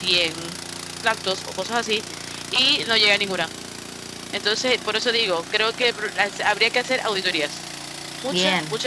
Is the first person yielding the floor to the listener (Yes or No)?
No